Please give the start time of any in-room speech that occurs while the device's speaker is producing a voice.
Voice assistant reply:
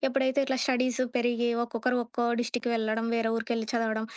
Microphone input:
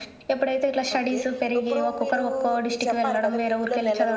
0.9 s

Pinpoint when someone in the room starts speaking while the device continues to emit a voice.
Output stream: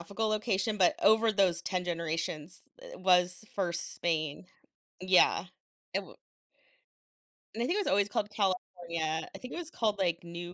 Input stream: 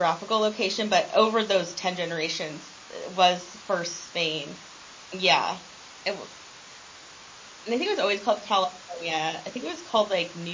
none

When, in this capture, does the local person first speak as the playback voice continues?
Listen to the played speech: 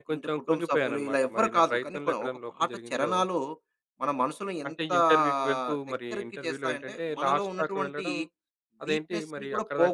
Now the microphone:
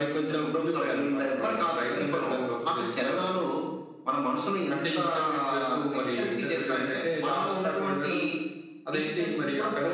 none

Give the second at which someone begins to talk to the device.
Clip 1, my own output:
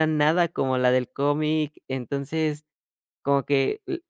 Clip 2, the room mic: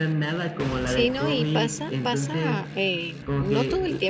0.8 s

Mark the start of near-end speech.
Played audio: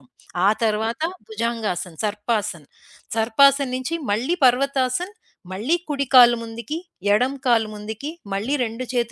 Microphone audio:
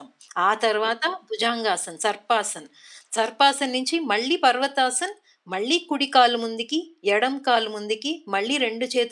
none

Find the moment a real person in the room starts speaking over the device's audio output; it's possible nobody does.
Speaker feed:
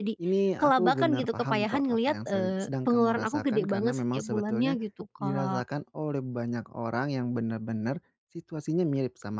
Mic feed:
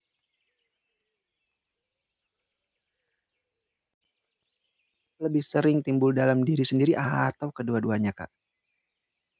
5.2 s

